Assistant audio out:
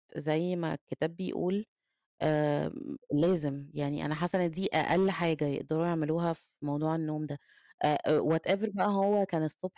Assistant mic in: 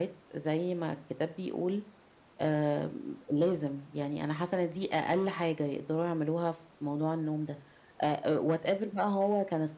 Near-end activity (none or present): none